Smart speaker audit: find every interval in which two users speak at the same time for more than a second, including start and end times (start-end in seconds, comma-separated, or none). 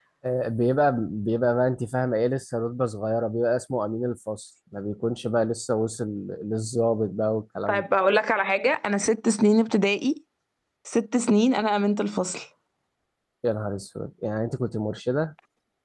none